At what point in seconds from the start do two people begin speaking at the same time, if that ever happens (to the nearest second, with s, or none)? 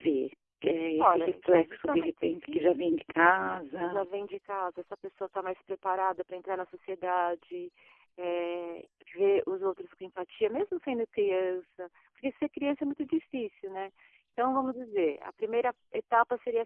1 s